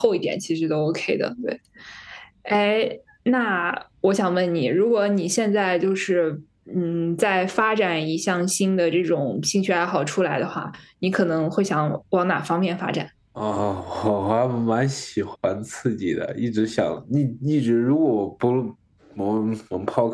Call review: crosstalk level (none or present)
none